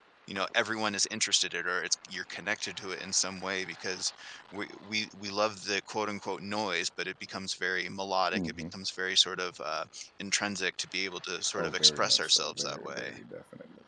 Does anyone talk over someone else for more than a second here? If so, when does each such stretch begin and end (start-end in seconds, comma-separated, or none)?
11.6-13.2